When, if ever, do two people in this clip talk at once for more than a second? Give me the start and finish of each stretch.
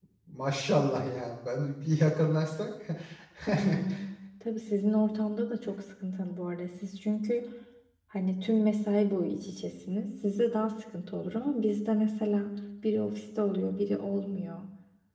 none

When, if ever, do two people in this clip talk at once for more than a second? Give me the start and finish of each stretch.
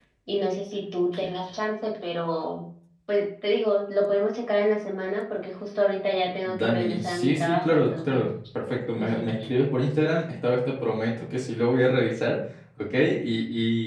6.4-8.2

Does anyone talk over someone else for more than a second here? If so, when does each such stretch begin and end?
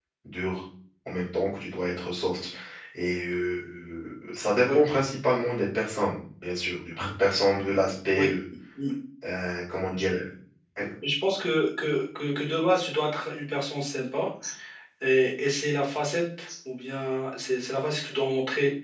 none

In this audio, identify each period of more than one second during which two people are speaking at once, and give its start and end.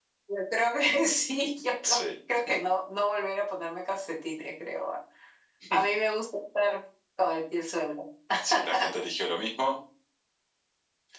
none

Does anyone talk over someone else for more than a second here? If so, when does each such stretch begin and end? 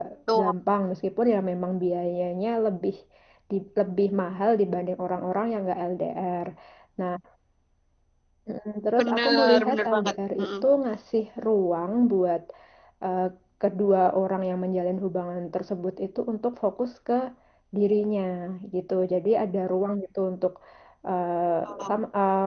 9.0-10.5

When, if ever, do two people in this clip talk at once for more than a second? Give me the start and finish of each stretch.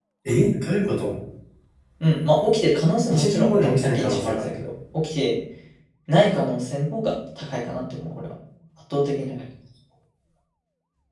3.1-4.4

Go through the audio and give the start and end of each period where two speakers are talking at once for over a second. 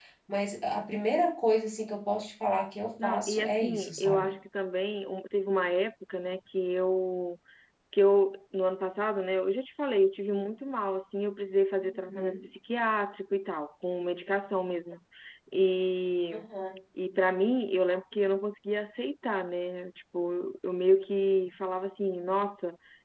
3.0-4.3

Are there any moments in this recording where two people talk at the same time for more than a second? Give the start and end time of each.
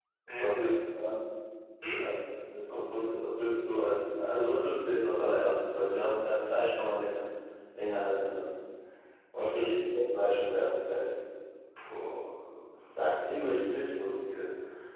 none

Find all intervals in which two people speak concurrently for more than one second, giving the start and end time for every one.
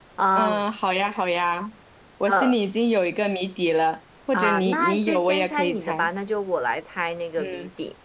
4.3-6.1

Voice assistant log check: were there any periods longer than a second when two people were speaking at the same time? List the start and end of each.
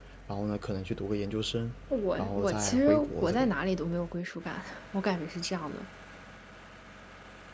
2.2-3.5

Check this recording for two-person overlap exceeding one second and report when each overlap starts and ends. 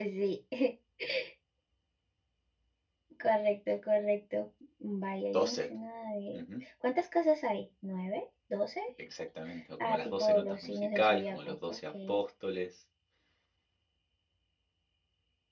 9.8-11.9

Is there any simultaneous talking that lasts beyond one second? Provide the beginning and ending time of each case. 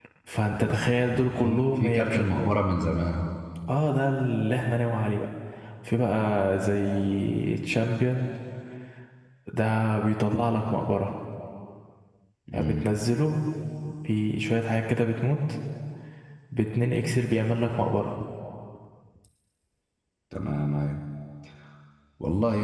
0.6-2.6

